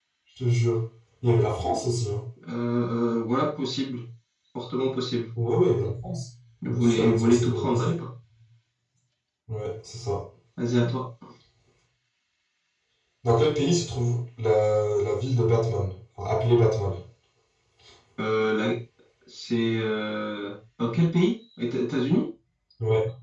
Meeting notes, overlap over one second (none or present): present